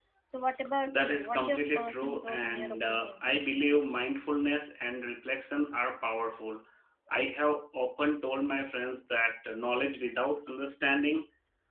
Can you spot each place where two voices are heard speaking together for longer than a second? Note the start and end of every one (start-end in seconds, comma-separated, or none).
0.9-3.2